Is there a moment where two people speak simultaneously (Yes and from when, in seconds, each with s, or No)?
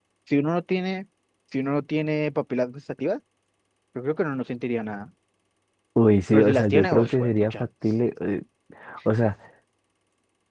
Yes, from 6.3 s